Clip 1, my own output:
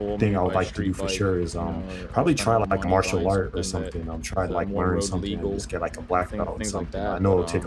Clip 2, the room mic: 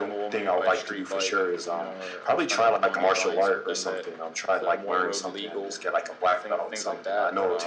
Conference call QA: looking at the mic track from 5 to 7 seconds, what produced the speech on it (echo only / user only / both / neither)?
echo only